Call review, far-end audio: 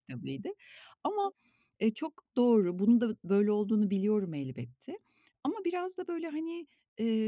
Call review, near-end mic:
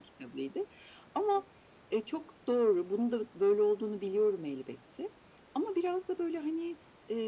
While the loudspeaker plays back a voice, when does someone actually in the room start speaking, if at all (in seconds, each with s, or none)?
none